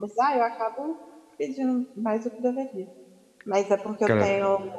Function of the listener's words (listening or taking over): listening